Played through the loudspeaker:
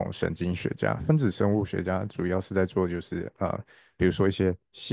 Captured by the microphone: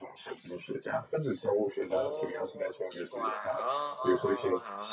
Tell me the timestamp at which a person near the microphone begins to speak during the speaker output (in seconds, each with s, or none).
1.9 s